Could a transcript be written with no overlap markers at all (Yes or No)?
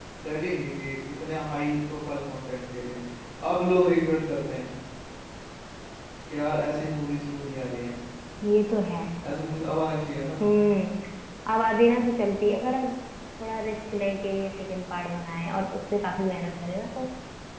Yes